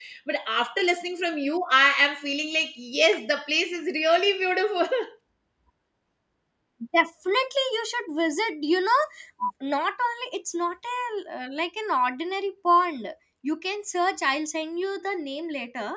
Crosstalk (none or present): none